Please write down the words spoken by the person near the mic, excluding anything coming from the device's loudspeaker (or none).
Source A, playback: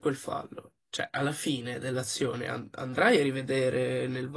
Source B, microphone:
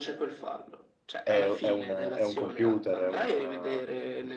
è- è un, è un computer, è, un-